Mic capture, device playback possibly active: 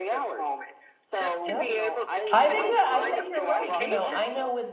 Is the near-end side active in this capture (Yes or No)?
Yes